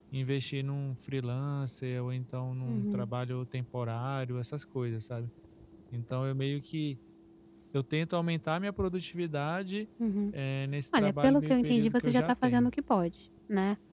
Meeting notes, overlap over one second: present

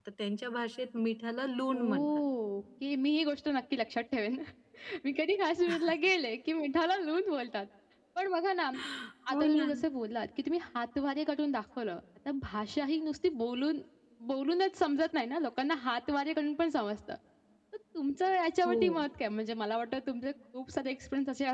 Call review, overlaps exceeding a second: none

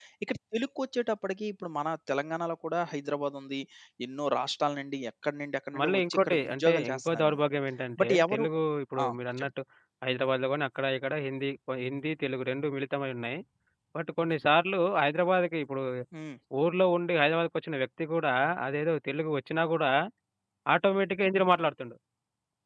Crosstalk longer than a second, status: present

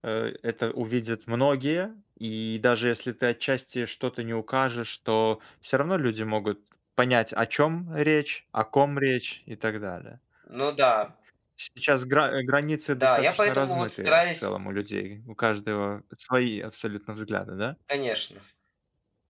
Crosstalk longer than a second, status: present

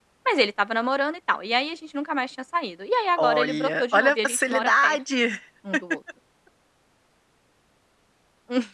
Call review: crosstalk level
present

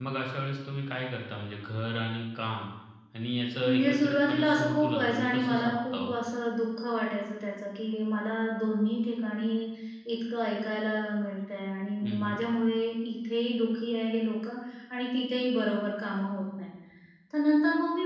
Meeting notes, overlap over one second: present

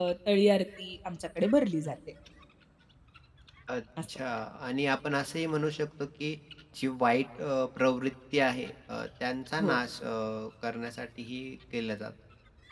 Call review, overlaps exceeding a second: none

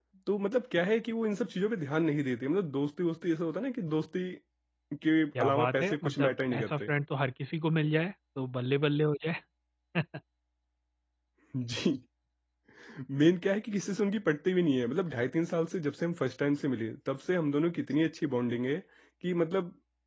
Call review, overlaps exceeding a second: present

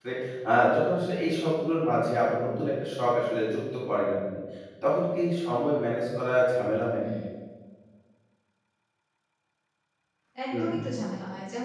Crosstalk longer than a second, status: none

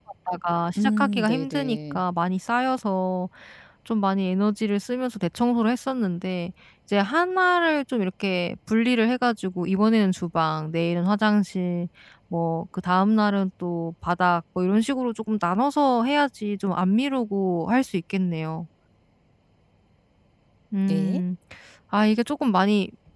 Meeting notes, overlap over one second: present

